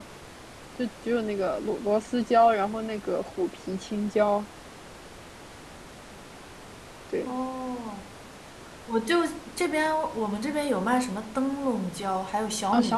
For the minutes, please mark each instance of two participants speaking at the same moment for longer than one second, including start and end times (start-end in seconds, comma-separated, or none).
none